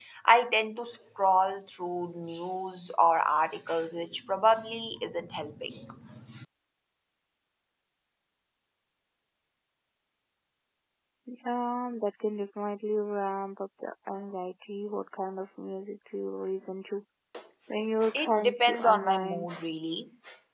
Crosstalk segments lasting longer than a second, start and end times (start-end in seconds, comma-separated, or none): 18.1-19.5